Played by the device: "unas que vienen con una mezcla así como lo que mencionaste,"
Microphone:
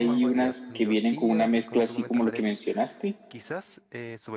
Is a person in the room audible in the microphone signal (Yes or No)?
Yes